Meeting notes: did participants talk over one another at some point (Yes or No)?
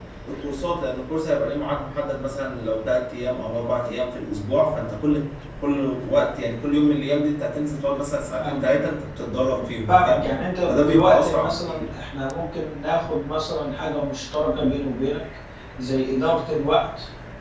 Yes